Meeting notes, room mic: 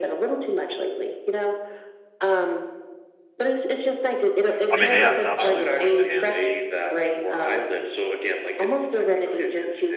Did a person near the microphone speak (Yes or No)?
Yes